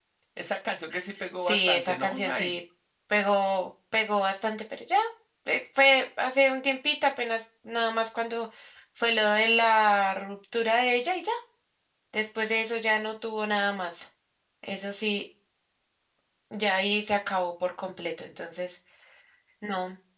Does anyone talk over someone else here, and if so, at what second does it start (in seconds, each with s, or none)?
1.4 s